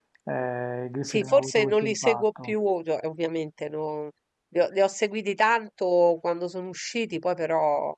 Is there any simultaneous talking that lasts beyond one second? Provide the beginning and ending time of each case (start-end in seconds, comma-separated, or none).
1.1-2.5